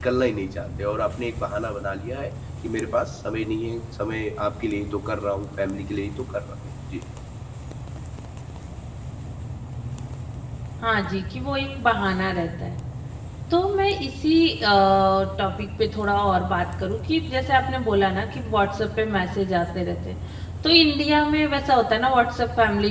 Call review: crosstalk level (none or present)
none